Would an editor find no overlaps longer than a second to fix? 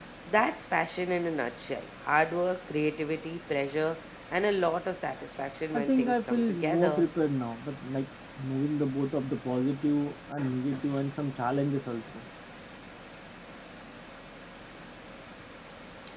No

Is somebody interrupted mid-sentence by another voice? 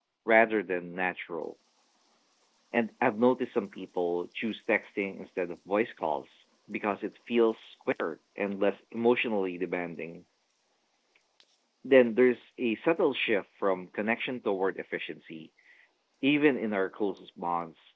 No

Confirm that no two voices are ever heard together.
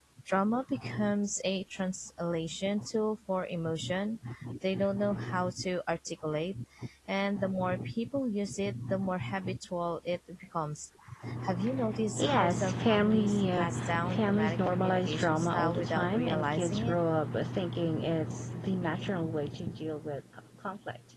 No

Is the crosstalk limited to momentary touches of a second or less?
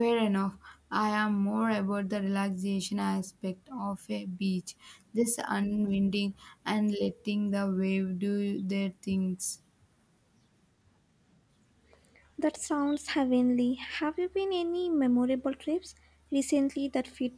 Yes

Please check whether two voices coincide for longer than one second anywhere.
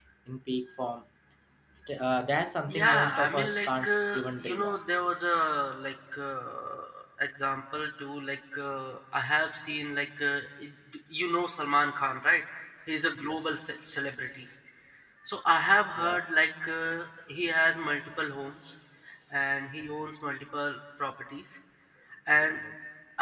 Yes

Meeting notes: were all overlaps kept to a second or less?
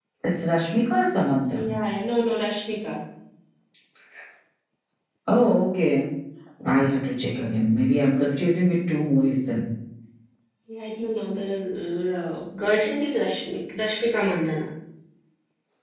Yes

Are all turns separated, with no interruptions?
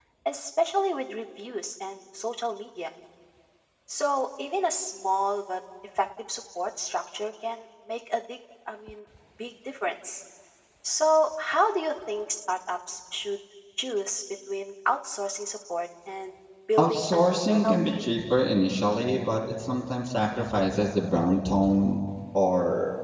No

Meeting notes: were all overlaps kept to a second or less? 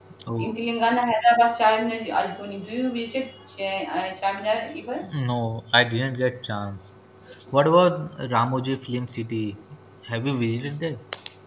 Yes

